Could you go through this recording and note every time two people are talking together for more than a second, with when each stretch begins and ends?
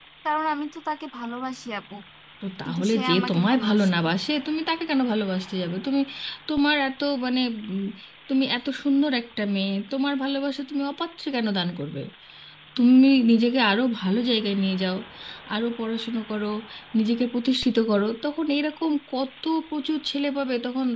2.6-4.0

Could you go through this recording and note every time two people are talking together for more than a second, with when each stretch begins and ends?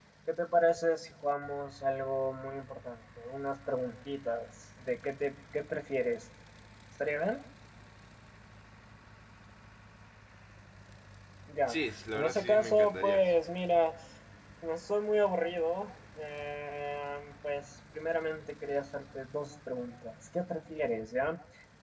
11.7-13.2

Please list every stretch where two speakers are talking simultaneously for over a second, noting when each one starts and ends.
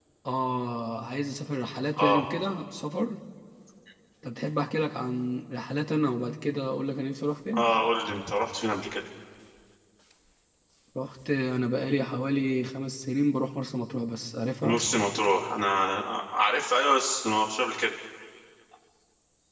none

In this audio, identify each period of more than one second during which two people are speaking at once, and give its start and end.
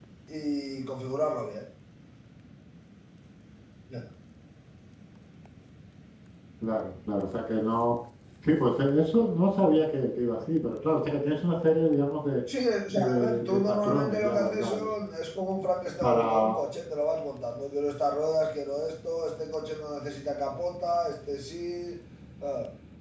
12.9-14.9

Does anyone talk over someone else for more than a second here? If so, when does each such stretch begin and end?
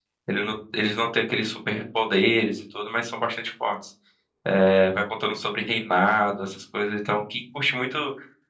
none

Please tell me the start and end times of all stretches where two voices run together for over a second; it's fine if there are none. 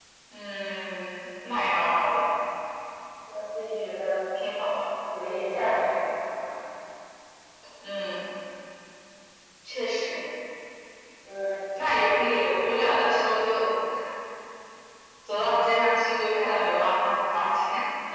none

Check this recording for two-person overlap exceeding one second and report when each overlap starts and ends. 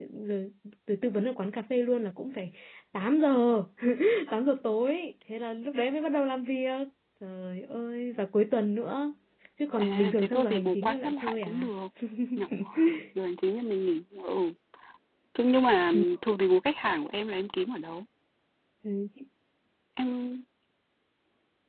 9.8-11.7

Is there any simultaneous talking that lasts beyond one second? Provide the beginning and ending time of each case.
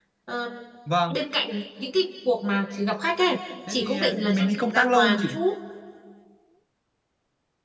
3.7-5.3

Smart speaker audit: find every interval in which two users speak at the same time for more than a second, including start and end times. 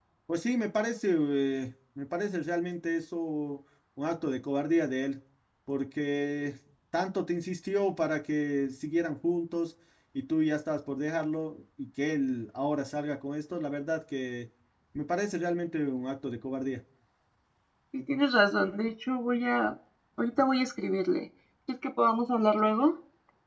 none

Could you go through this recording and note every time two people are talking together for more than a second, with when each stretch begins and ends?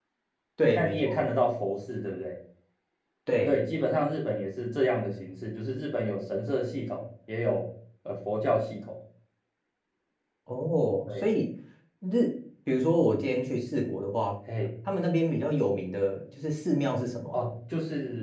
none

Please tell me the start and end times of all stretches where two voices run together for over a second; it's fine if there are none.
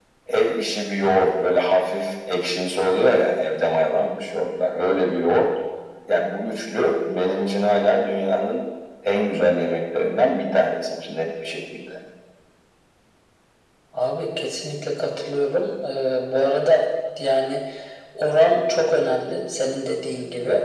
none

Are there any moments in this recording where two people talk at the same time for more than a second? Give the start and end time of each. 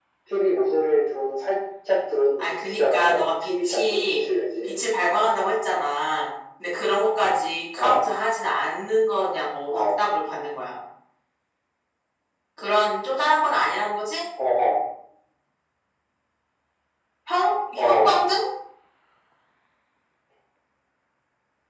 2.4-4.0

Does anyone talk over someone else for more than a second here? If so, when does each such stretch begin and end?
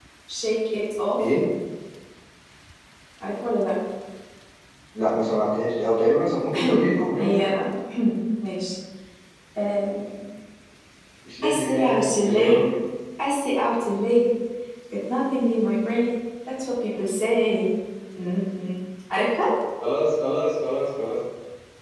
11.4-12.7

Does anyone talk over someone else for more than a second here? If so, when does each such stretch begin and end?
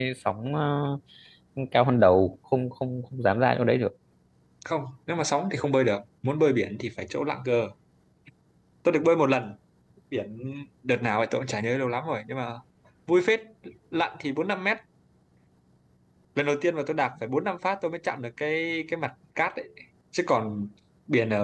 none

